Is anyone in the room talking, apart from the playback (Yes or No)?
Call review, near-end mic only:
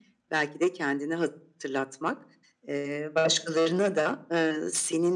No